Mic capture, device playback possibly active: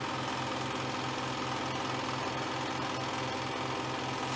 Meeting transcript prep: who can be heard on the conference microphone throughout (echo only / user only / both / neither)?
neither